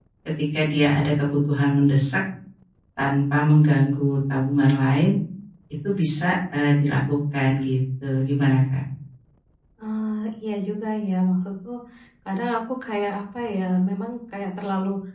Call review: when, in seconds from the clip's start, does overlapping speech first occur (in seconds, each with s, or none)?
none